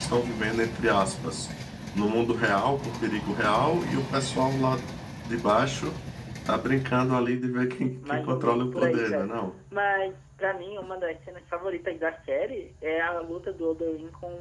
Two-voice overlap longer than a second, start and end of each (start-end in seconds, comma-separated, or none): 8.1-9.3